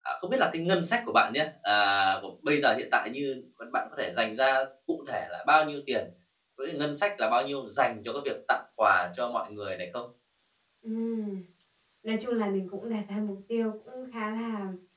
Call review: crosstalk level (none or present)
none